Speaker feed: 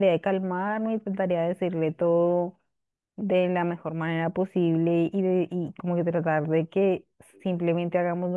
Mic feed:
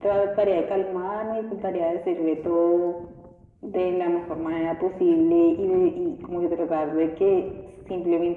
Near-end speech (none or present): none